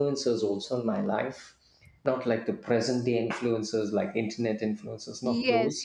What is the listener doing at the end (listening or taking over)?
taking over